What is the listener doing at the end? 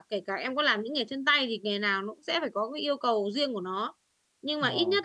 listening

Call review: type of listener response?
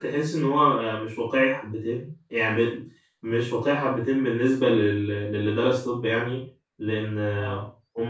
listening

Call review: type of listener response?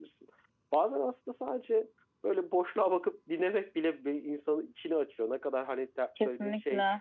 listening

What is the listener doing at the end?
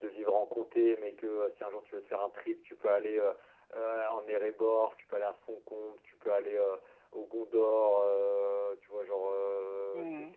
listening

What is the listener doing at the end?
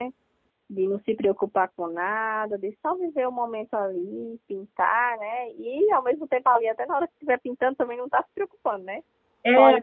listening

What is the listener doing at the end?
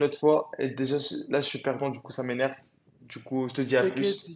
taking over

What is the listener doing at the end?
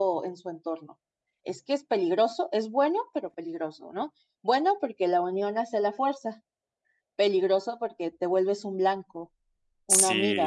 taking over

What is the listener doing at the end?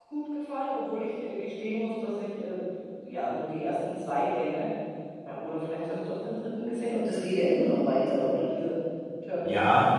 taking over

